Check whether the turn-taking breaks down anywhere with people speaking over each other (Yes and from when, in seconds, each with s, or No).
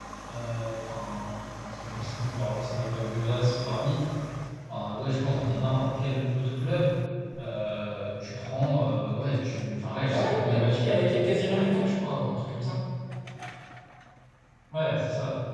Yes, from 10.0 s